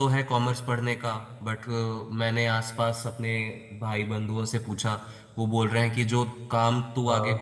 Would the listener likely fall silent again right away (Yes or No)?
Yes